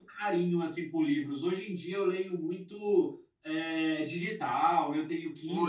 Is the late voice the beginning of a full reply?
No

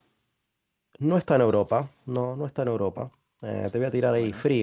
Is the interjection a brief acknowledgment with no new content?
Yes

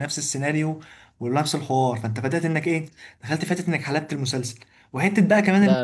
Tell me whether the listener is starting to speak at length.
No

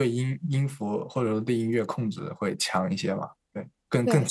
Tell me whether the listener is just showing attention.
No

